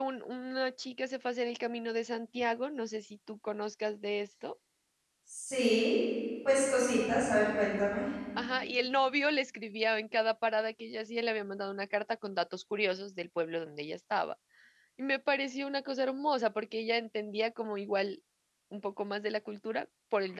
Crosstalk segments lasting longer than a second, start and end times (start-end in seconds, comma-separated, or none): none